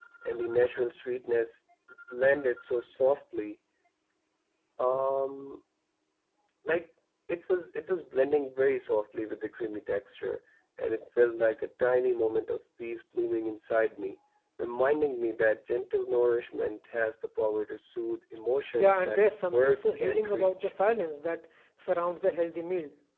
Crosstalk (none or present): present